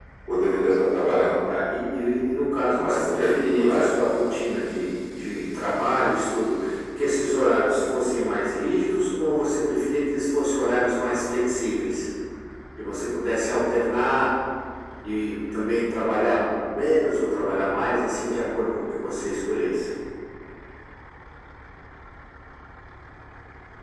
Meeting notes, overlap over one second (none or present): present